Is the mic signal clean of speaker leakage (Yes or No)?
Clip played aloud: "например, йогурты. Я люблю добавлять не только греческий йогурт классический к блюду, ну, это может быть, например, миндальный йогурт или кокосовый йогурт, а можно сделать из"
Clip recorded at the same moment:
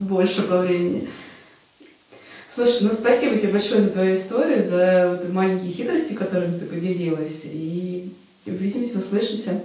Yes